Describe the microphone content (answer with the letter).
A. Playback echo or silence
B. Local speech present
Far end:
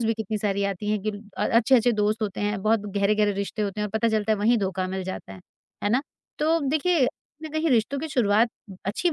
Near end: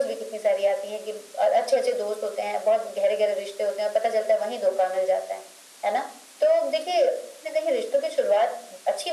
A